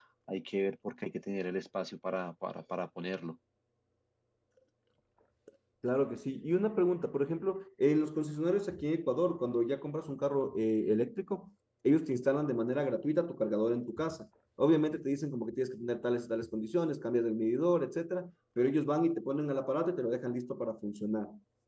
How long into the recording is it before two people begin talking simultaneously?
none

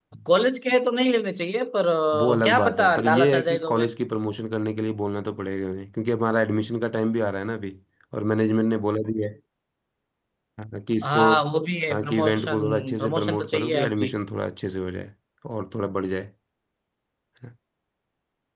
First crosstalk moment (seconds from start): 2.2 s

